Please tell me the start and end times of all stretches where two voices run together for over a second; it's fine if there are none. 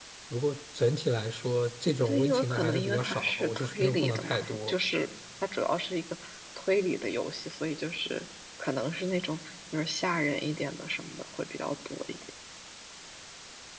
2.0-4.7

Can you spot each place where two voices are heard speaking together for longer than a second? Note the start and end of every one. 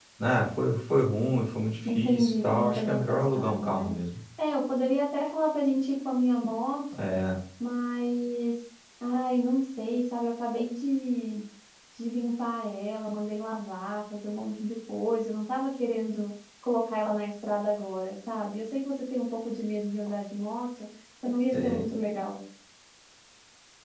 1.8-3.9

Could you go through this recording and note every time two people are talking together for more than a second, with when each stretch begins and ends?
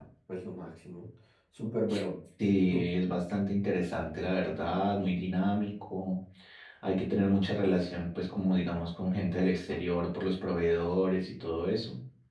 none

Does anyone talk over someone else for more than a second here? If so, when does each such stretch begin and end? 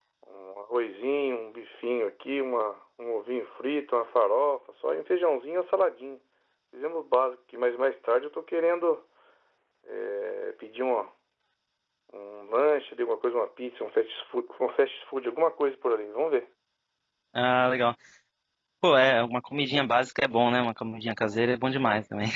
none

